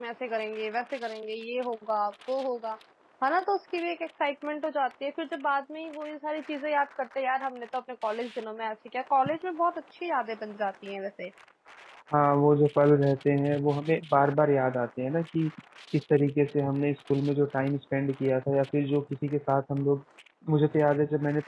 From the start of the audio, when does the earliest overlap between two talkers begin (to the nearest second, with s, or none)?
none